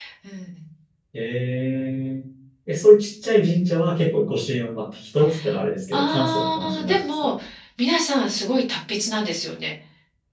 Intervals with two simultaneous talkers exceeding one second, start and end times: 5.9-7.3

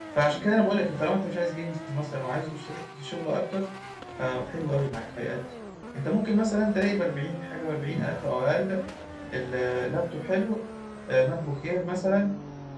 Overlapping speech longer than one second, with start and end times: none

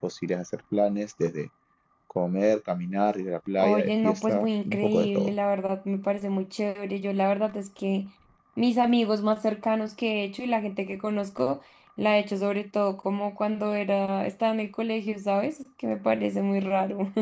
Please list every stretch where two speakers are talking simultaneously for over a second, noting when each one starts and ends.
3.6-5.3

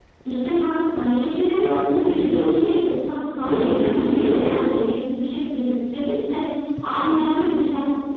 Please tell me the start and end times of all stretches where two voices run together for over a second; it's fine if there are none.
3.4-4.7

